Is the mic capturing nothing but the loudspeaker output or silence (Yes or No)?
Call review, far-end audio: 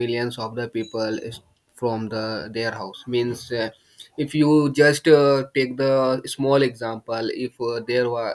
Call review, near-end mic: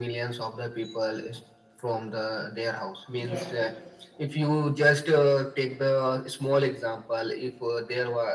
No